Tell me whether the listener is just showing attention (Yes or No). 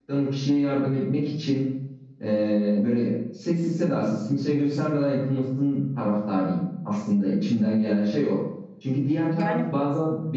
Yes